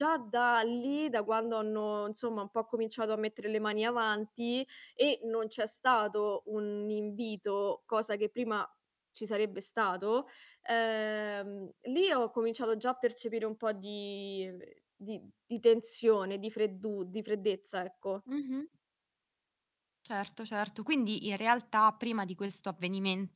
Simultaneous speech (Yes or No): No